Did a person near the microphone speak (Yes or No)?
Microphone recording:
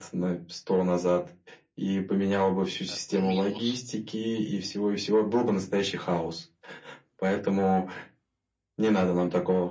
Yes